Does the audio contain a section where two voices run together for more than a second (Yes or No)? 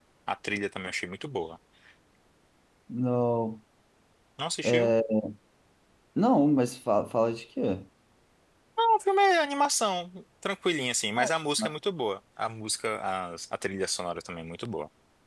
No